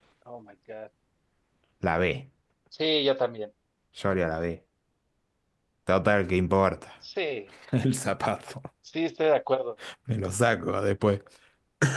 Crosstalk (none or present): none